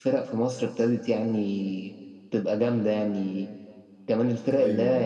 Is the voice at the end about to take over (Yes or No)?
No